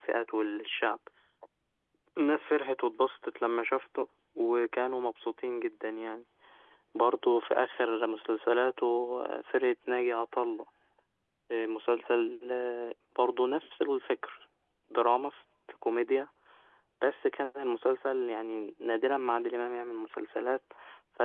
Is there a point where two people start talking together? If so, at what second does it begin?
none

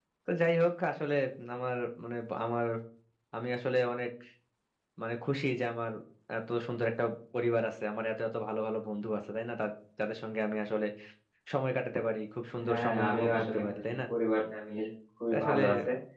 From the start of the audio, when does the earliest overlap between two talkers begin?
12.7 s

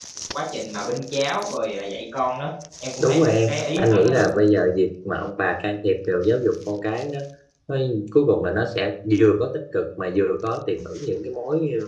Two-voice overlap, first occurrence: 3.0 s

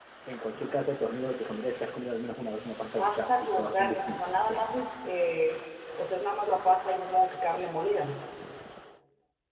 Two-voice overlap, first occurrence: 3.0 s

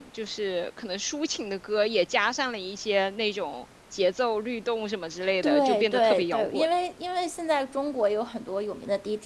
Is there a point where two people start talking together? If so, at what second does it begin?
5.4 s

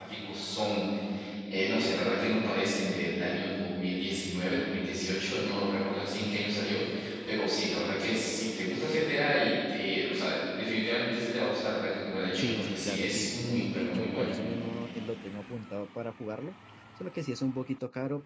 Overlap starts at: 12.3 s

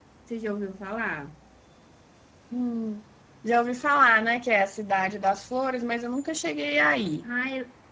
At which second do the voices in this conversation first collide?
none

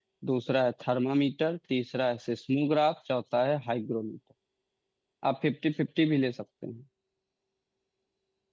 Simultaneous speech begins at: none

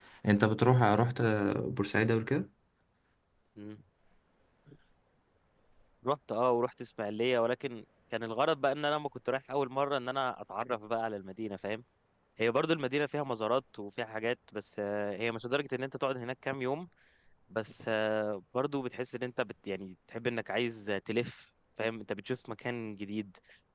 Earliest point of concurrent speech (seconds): none

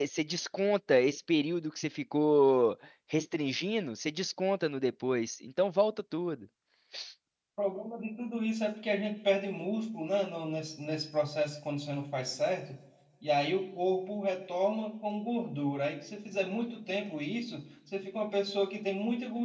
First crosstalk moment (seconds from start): none

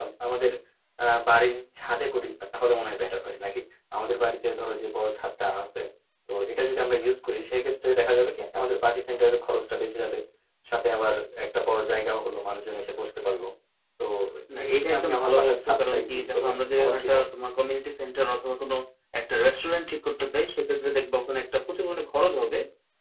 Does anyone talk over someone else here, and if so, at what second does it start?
14.6 s

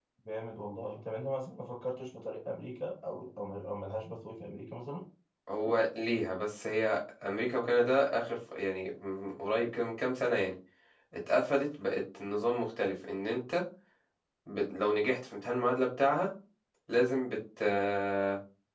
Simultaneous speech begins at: none

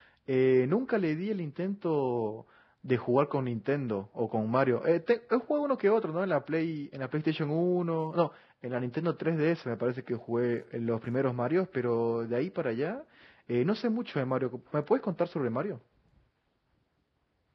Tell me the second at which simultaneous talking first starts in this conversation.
none

